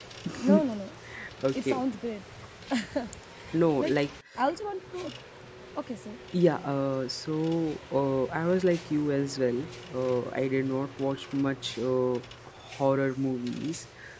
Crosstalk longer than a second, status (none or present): none